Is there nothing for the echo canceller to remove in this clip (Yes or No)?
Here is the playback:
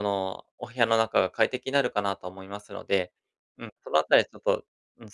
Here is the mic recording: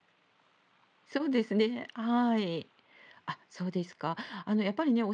Yes